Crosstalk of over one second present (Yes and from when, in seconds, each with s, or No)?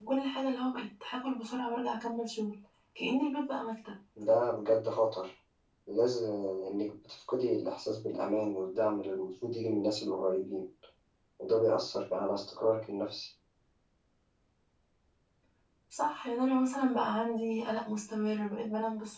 No